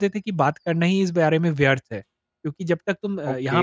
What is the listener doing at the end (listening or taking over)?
listening